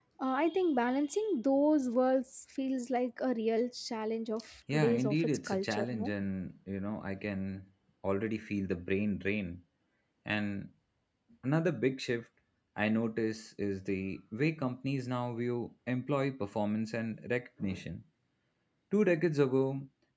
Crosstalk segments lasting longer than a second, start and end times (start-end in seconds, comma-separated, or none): 4.7-6.1